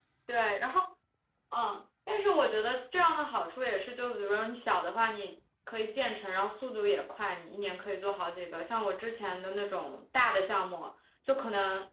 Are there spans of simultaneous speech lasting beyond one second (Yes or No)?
No